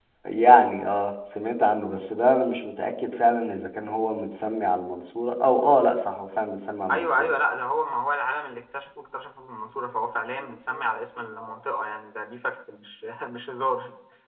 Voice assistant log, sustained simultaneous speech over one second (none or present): none